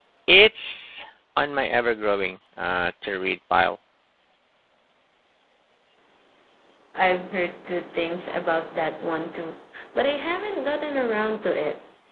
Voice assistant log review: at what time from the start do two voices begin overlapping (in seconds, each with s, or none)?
none